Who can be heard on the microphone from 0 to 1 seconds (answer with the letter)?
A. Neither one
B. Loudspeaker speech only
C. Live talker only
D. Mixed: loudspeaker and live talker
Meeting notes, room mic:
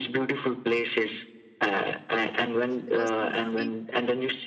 B